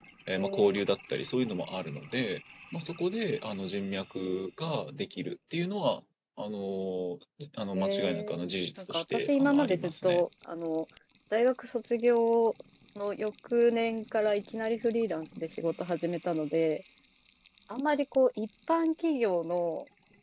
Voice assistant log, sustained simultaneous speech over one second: present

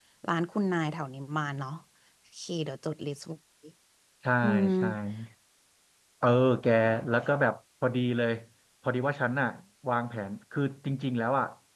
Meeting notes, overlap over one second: none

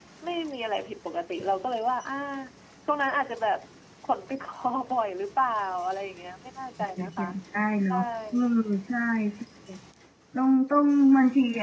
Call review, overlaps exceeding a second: none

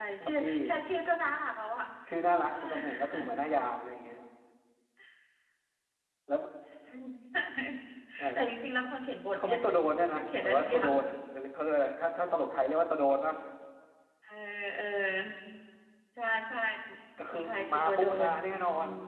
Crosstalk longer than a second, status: present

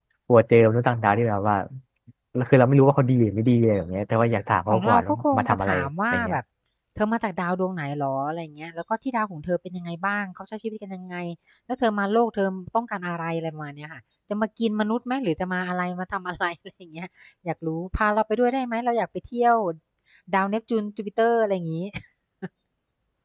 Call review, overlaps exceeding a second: present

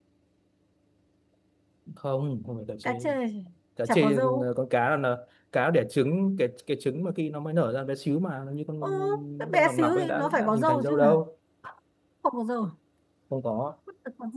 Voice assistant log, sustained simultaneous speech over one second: present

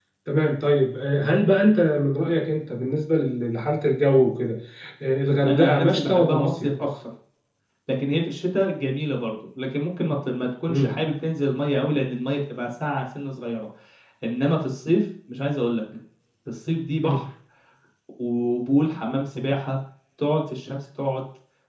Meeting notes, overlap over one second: present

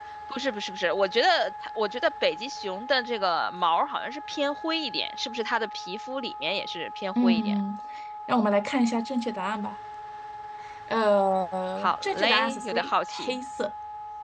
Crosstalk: present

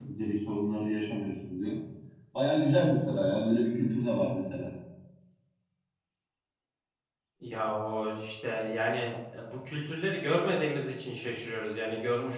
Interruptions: none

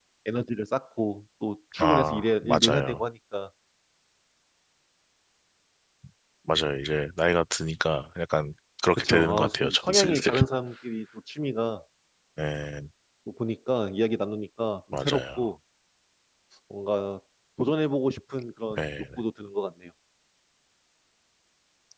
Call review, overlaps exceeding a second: present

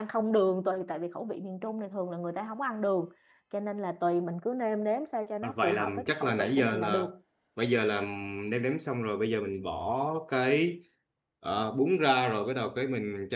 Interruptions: present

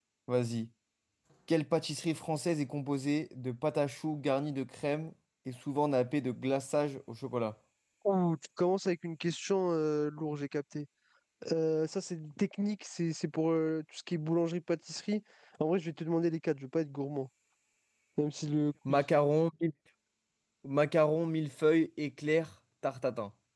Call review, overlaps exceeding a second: none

